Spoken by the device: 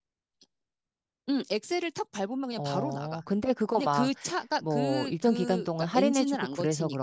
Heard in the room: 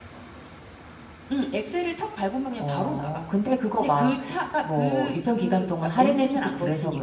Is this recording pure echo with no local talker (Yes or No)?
Yes